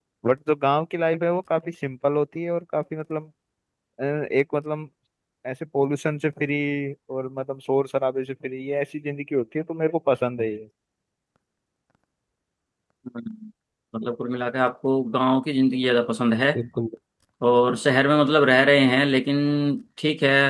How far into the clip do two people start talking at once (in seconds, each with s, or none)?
none